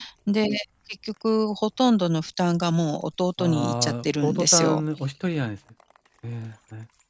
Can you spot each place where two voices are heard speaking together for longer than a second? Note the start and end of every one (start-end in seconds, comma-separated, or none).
3.4-4.8